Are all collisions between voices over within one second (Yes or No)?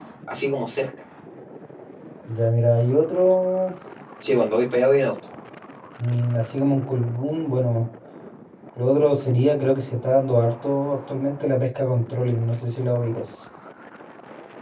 Yes